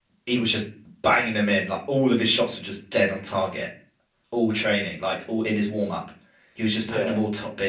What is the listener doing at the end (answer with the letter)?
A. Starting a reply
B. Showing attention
B